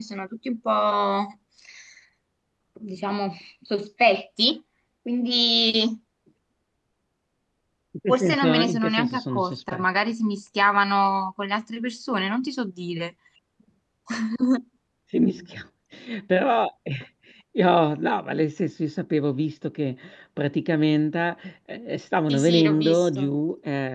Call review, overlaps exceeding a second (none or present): present